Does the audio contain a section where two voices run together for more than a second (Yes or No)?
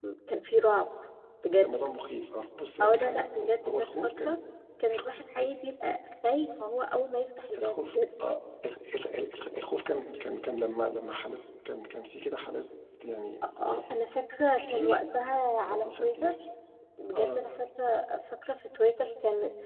Yes